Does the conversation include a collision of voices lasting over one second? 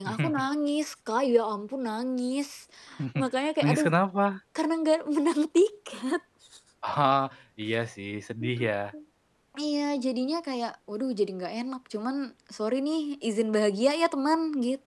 No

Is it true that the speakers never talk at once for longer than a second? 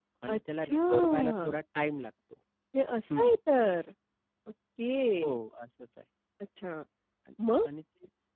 No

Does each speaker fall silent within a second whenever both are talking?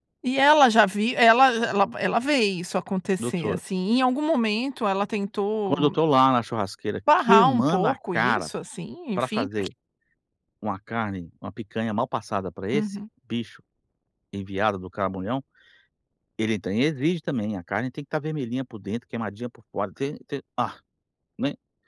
No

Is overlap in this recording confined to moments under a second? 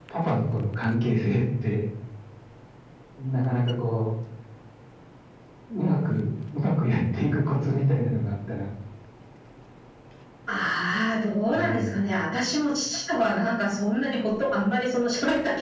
Yes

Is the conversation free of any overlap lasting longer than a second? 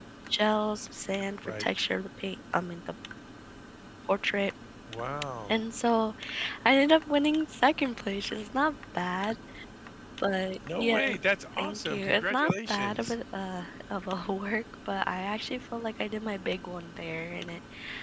No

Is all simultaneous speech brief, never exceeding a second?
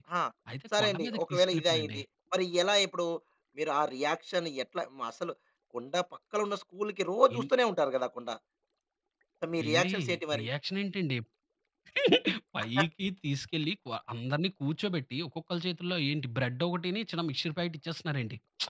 No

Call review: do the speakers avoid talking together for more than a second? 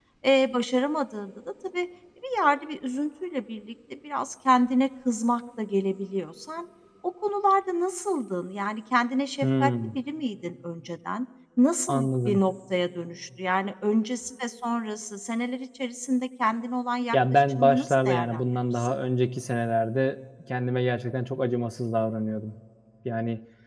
No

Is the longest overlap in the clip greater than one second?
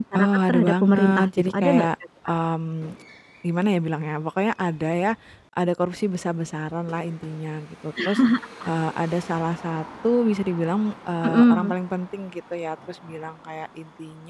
Yes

